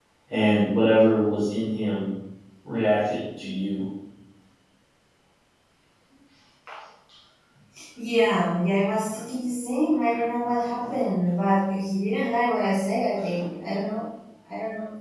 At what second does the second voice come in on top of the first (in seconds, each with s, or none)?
none